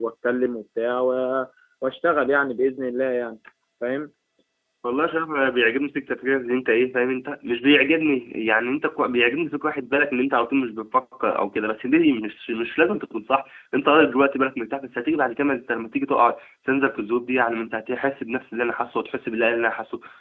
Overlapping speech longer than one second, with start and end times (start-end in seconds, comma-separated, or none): none